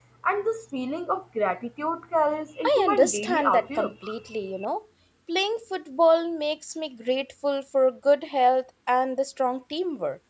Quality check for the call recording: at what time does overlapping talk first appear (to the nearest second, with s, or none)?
3 s